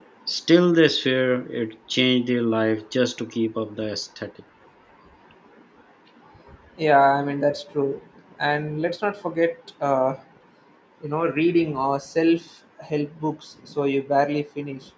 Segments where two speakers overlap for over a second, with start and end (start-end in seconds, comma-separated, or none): none